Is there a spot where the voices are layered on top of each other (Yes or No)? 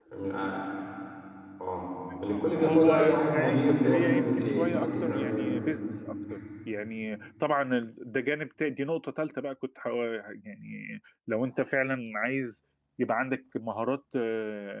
Yes